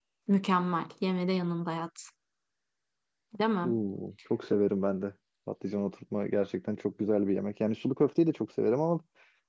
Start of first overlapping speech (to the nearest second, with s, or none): none